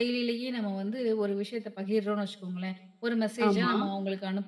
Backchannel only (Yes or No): Yes